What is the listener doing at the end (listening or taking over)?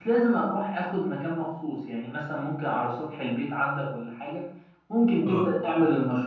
listening